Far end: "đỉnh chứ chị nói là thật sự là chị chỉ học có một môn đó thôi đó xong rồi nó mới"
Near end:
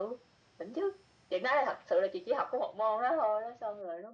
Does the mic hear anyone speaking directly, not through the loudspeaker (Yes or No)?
No